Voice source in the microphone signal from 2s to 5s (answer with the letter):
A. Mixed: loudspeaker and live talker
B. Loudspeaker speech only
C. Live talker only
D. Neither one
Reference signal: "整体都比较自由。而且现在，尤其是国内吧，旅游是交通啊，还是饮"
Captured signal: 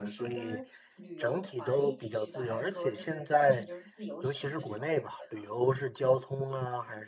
A